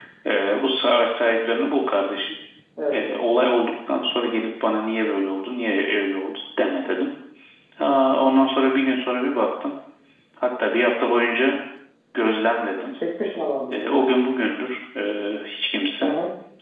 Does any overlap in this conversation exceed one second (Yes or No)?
No